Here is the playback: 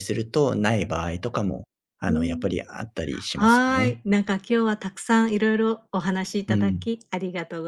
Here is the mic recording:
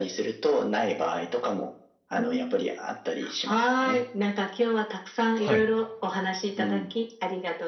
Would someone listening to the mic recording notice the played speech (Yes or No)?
Yes